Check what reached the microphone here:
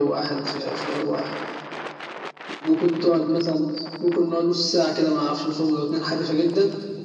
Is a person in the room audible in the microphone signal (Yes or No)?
No